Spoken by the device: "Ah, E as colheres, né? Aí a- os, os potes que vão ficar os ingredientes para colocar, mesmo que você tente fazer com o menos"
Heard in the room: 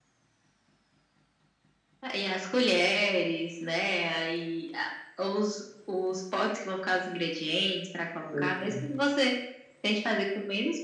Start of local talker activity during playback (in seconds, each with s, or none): 8.3 s